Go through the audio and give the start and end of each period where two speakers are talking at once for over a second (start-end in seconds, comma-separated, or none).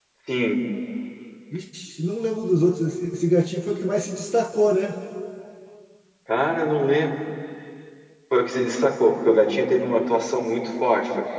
none